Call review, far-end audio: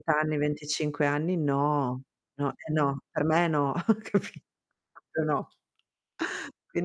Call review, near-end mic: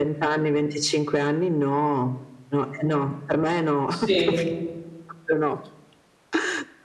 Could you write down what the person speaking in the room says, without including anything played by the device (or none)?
Sì,